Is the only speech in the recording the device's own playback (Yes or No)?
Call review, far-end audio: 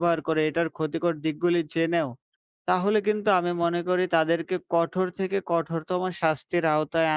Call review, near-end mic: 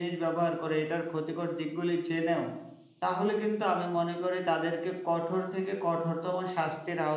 Yes